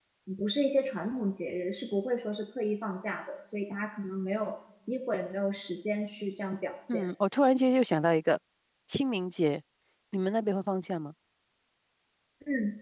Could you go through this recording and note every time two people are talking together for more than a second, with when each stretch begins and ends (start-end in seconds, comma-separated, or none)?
none